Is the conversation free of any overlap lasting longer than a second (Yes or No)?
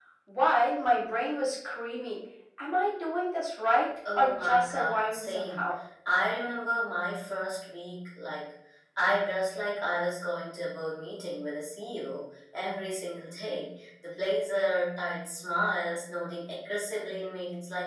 No